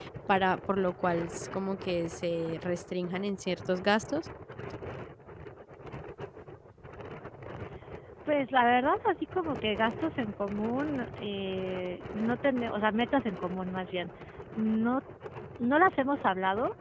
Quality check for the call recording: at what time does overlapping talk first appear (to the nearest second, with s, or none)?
none